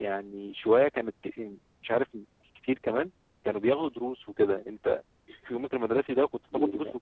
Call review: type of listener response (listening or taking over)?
taking over